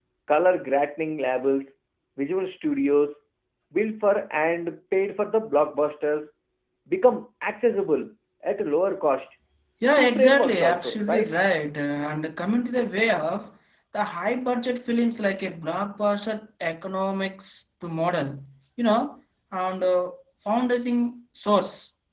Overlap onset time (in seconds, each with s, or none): 10.0 s